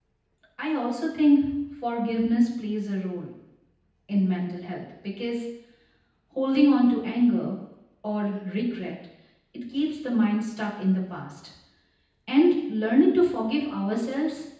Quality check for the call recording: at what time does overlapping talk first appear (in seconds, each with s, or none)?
none